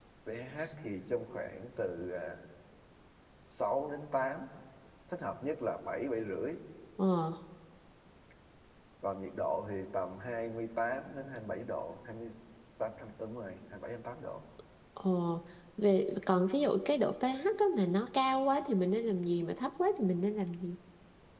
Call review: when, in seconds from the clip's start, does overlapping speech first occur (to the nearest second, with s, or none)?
none